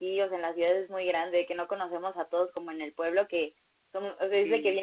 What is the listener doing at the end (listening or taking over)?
listening